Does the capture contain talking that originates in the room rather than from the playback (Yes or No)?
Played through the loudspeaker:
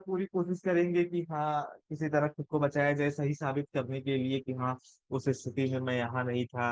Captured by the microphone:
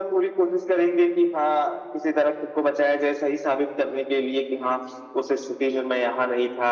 No